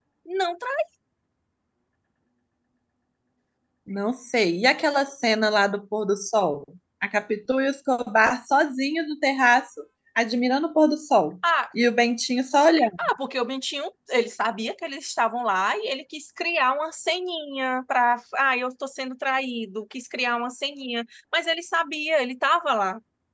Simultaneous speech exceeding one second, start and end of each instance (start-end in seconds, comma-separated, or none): none